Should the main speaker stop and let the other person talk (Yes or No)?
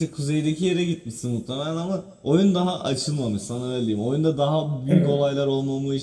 No